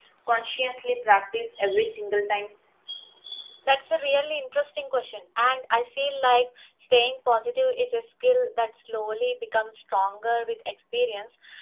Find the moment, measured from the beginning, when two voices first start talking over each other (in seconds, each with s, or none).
none